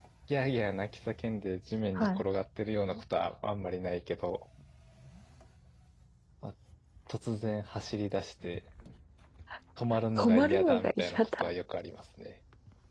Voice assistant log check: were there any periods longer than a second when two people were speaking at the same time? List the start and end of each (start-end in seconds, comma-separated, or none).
10.2-11.5